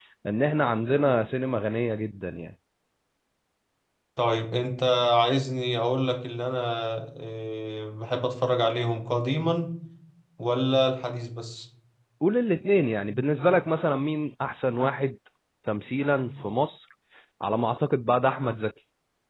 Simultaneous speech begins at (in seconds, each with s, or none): none